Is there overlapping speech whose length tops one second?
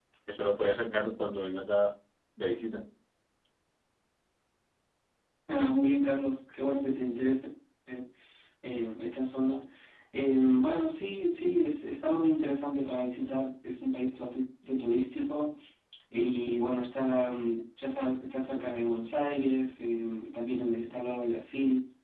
No

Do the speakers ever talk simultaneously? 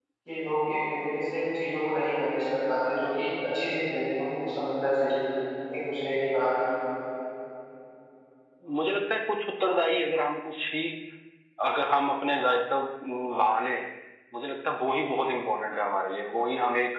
No

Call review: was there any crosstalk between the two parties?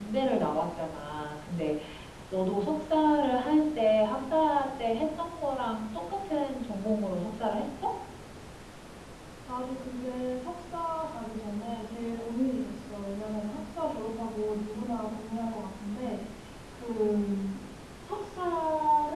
No

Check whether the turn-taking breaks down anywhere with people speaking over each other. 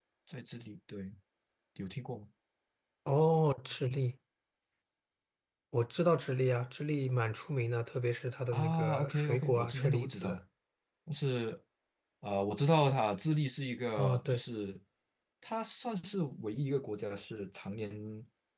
Yes, from 8.5 s

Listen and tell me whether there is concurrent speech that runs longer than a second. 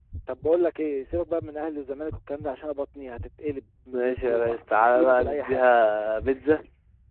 Yes, from 3.9 s

